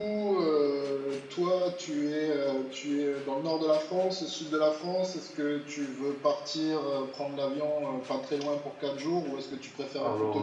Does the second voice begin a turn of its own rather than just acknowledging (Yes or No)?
No